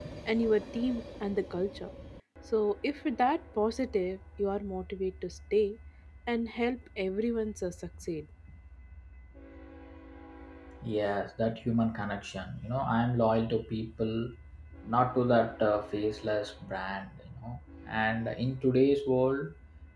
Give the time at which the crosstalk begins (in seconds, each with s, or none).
none